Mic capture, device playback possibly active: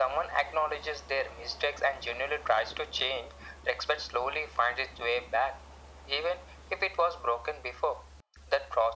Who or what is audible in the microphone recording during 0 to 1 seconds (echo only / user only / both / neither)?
echo only